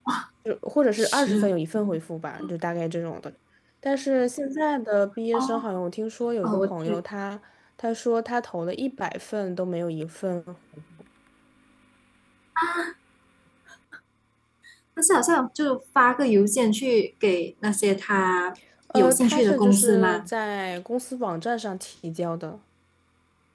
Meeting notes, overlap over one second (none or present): present